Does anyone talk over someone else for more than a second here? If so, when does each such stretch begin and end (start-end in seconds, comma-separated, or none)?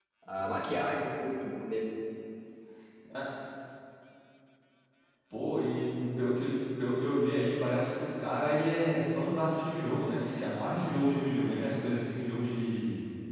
none